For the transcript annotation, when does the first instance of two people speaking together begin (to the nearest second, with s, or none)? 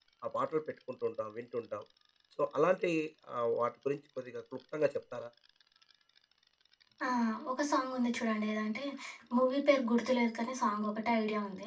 none